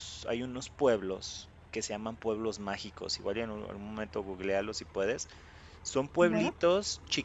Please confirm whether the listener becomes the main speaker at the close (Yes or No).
No